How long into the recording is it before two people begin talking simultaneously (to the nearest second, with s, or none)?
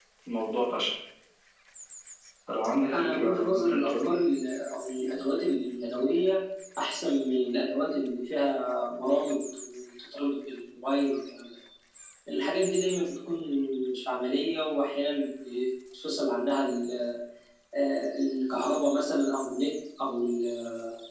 3 s